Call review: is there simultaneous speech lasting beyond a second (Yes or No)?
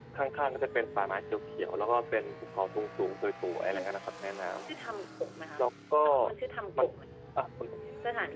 No